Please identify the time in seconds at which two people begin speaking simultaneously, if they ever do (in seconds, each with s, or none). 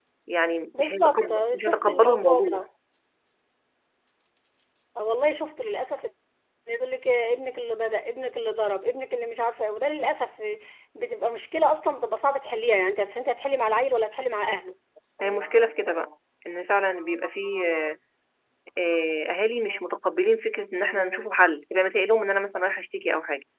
0.8 s